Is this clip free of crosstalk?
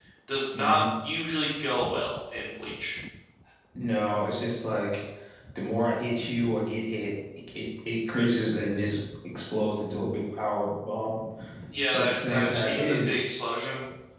No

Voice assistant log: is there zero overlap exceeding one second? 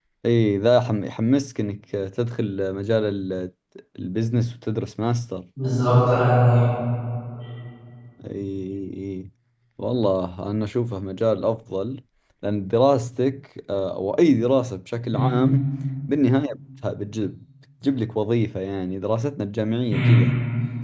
Yes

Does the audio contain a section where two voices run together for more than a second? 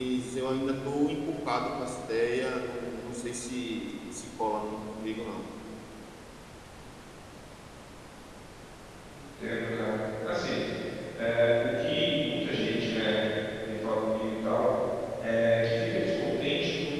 No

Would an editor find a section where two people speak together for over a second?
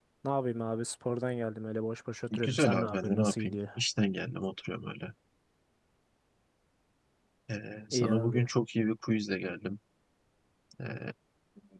Yes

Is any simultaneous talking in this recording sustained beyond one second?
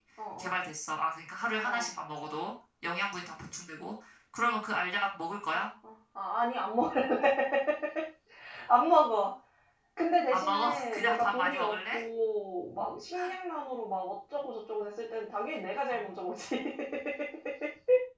Yes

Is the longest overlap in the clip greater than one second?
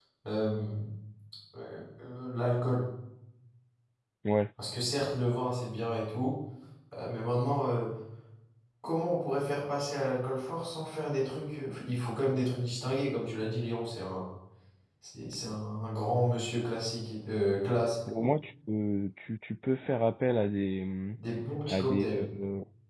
No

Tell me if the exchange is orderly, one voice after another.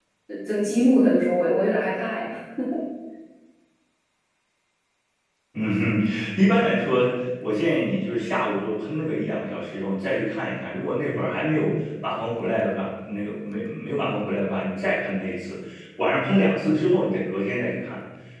Yes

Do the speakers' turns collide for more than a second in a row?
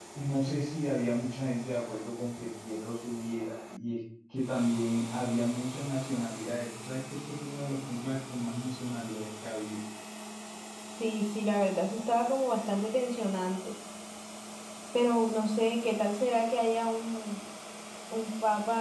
No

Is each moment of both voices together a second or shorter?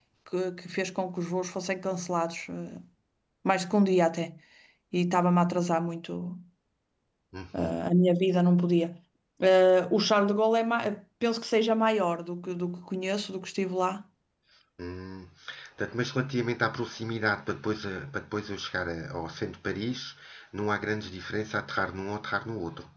Yes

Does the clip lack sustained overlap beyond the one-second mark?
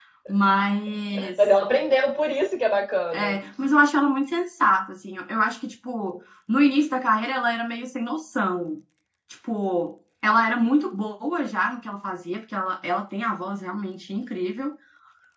Yes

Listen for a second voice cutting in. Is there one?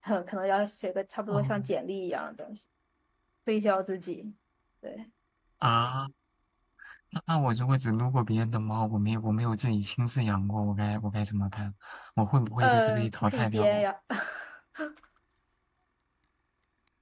Yes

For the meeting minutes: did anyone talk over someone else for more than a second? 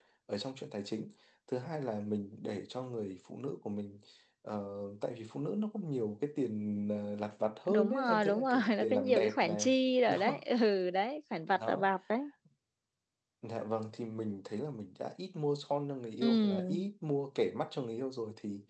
Yes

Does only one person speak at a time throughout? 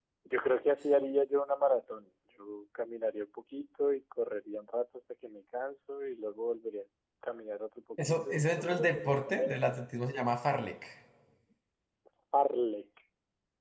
No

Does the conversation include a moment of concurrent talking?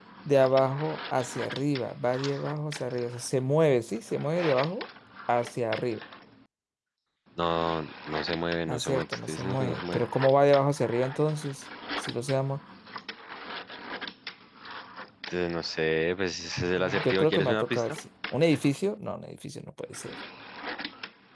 Yes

